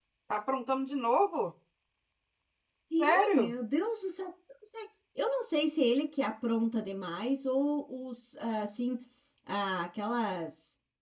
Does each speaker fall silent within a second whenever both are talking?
Yes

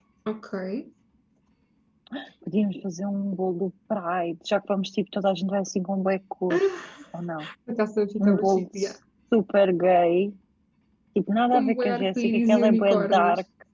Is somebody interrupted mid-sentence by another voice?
Yes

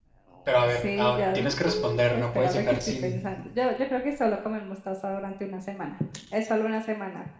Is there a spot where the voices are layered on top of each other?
Yes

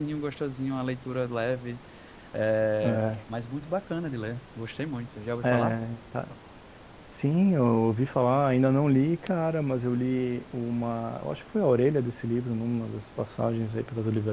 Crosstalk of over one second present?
No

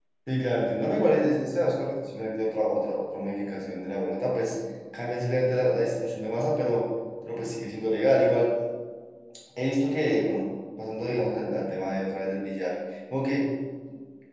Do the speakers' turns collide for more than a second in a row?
No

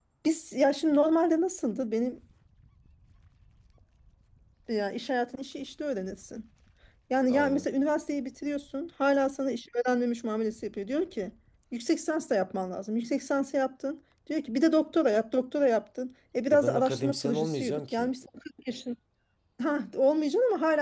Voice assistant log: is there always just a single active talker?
No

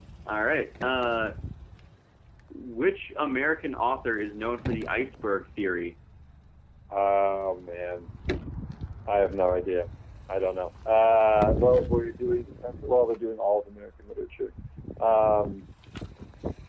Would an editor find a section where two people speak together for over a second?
No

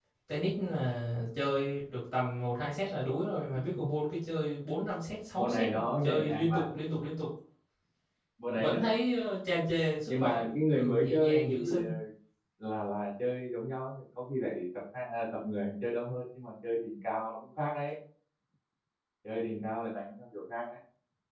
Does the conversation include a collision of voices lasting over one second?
Yes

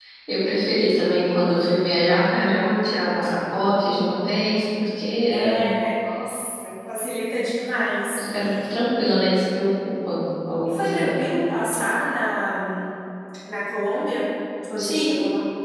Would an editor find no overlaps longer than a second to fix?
Yes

